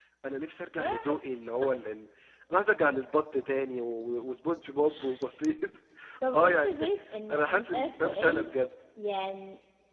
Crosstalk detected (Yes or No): Yes